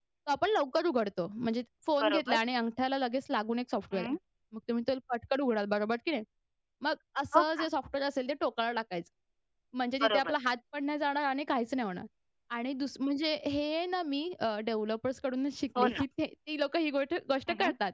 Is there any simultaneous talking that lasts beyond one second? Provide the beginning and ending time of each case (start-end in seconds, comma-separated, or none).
none